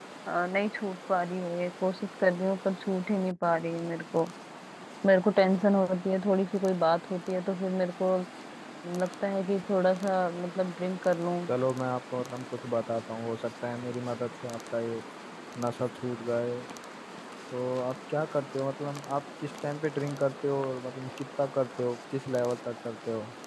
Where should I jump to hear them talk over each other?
none

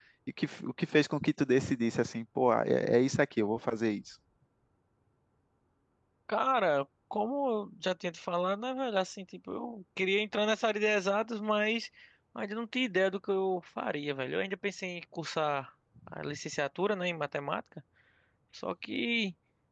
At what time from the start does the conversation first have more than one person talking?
none

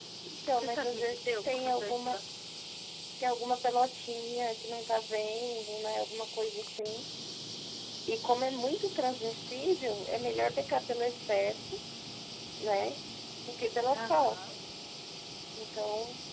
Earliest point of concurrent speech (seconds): 0.6 s

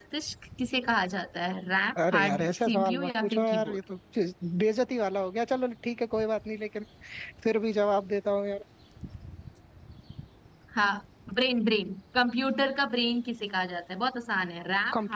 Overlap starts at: 2.0 s

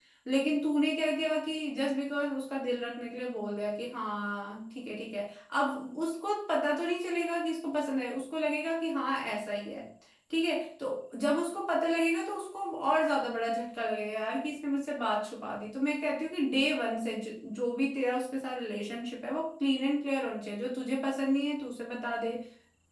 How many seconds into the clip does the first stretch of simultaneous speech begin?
none

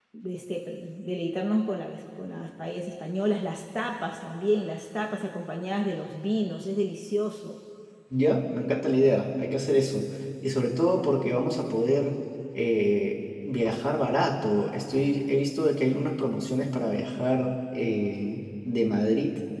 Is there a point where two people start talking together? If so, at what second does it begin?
none

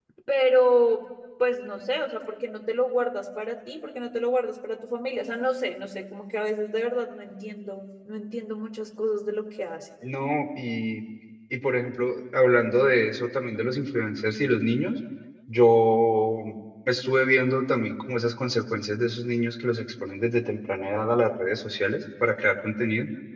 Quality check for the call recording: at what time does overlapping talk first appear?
none

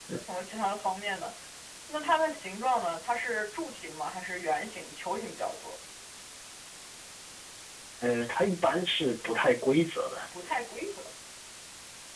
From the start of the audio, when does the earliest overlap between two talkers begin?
none

